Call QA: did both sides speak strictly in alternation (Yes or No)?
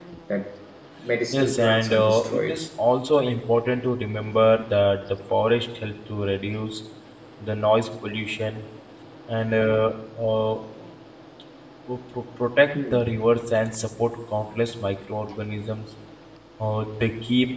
No